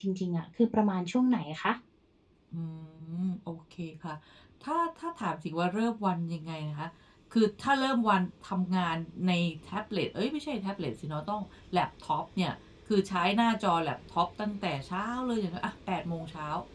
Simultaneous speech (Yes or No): No